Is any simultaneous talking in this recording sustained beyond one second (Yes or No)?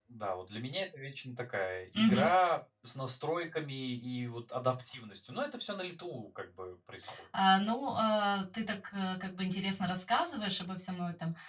No